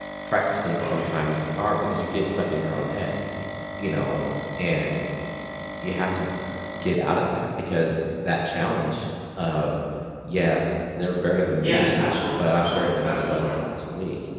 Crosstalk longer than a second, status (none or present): present